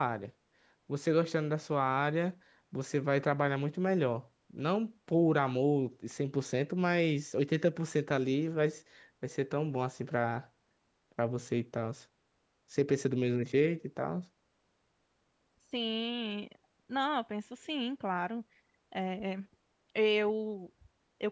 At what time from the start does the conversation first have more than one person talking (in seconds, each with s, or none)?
none